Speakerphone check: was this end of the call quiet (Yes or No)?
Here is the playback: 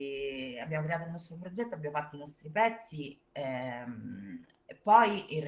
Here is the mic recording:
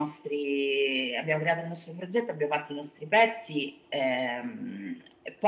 Yes